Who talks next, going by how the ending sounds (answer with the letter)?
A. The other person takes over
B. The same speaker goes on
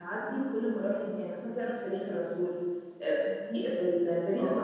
B